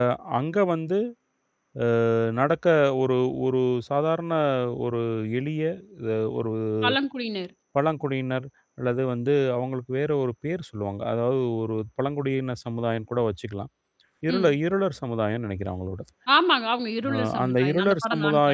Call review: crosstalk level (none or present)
present